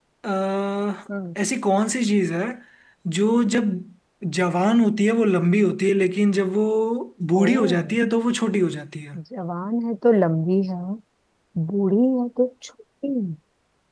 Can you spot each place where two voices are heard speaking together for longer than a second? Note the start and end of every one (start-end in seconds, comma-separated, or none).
none